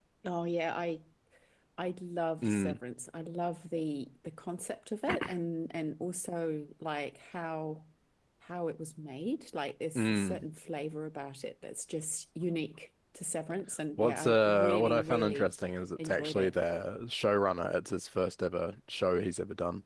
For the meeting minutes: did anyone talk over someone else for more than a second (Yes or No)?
Yes